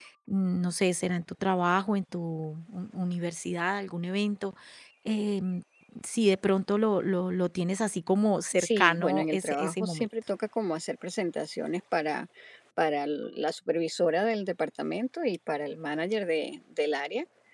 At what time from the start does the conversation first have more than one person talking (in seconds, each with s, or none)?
8.6 s